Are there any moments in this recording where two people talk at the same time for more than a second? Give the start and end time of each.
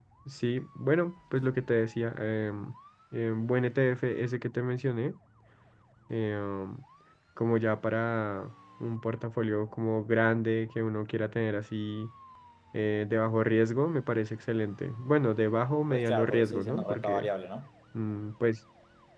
15.9-17.3

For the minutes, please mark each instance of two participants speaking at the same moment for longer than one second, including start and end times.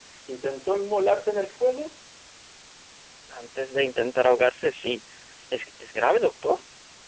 none

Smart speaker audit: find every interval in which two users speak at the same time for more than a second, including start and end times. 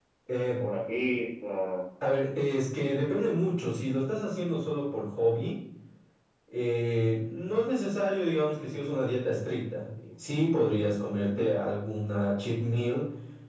none

